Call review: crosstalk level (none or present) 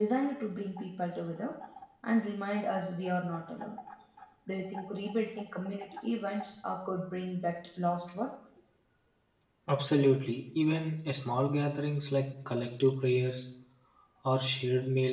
none